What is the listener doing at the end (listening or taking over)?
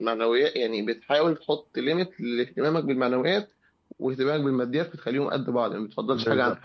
taking over